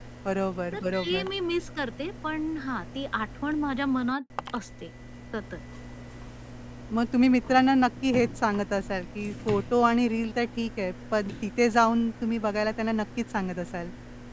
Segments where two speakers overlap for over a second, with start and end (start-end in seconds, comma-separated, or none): none